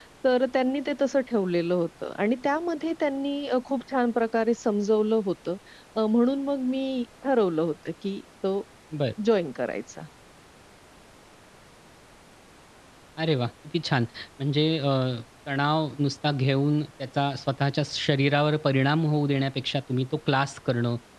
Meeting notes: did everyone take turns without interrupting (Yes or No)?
Yes